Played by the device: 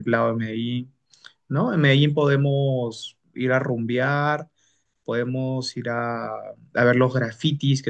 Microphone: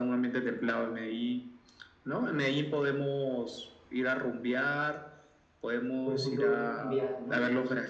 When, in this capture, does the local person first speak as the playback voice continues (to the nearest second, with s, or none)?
6 s